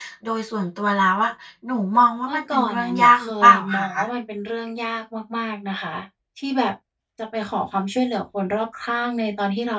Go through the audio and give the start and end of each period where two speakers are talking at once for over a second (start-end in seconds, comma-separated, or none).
2.3-3.9